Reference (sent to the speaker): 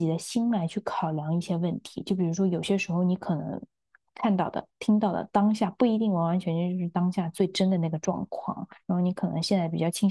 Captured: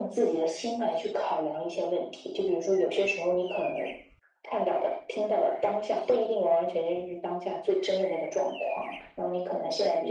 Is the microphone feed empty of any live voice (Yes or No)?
Yes